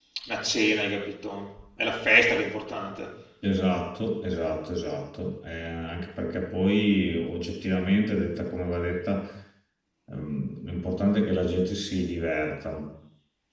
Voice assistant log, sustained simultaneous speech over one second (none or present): none